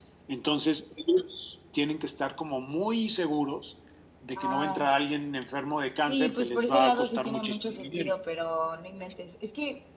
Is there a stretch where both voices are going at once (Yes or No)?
Yes